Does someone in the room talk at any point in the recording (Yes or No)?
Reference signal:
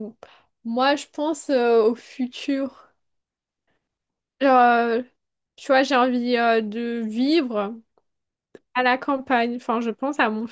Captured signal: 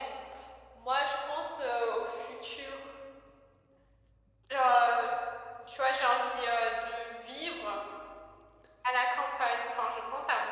No